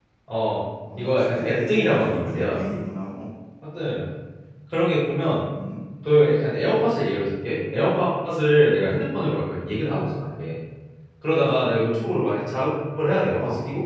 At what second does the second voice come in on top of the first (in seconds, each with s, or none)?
0.9 s